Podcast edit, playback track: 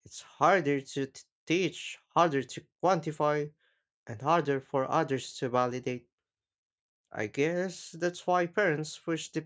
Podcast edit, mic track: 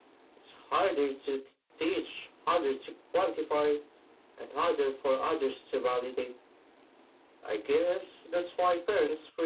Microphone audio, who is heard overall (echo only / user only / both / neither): echo only